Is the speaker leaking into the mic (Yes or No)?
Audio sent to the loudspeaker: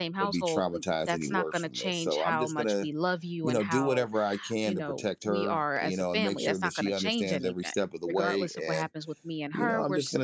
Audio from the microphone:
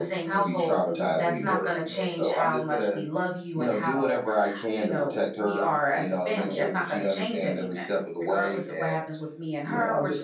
Yes